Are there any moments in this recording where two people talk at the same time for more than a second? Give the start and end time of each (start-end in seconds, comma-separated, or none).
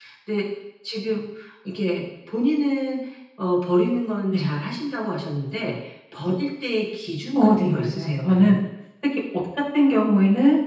7.4-8.6